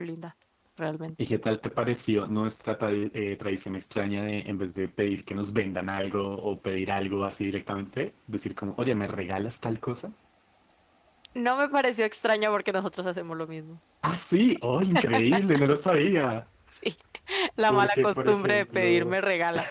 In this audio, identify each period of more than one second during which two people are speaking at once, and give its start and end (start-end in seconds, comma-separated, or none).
17.7-19.1